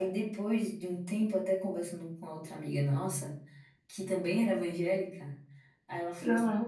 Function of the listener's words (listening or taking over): listening